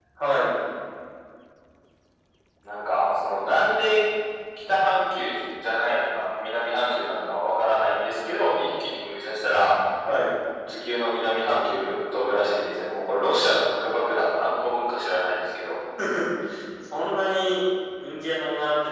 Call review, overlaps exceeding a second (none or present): none